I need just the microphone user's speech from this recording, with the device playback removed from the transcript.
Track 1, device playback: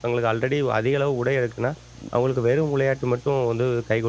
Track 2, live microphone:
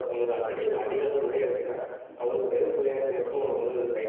none

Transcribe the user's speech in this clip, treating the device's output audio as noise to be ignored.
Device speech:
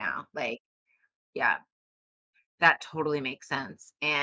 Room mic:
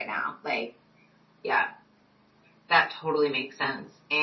none

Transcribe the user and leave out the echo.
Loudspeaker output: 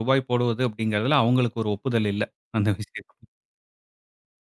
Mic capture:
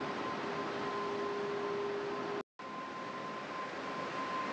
none

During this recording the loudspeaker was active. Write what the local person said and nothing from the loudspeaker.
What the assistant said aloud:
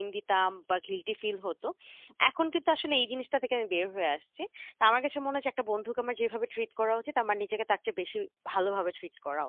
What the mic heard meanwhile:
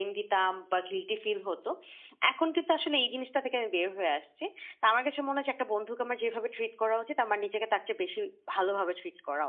none

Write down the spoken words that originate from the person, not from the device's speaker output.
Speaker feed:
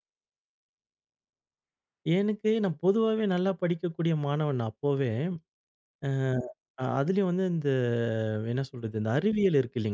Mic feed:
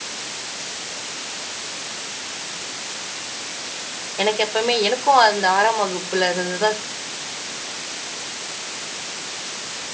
எனக்கு எப்பவுமே எனக்கும் அந்த 6ஆம் வகுப்புல இருந்து தான்

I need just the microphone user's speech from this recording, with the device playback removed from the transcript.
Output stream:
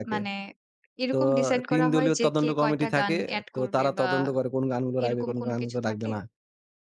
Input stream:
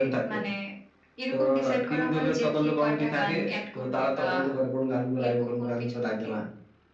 none

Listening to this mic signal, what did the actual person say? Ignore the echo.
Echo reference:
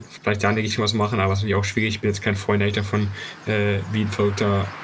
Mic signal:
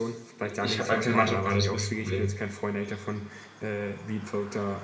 i ich habe halt keine Mannschaft grade, das ist 'n bisschen das Problem.

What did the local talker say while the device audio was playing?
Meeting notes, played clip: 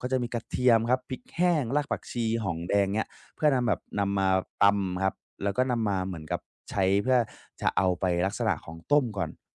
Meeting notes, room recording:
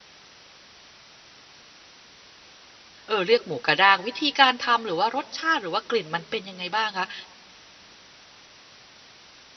เอ่อเรียกหมูกระด้างวิธีการทำหรือว่ารสชาติหรือว่ากลิ่นมันเป็นยังไงบ้างคะ

